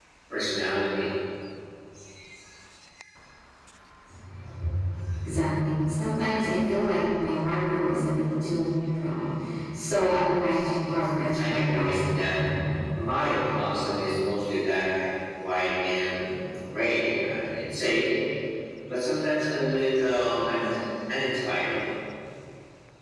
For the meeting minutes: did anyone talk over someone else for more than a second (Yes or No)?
Yes